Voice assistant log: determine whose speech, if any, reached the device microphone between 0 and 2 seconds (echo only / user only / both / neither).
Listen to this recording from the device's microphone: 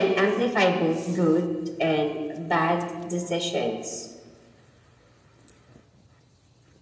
echo only